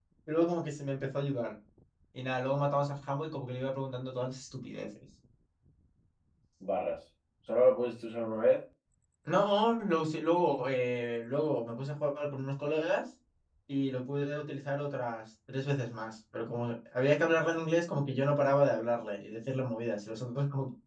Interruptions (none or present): none